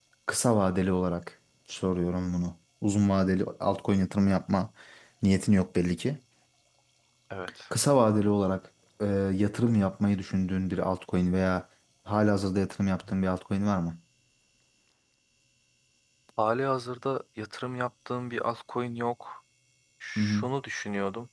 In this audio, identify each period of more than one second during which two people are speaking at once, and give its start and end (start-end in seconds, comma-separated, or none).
none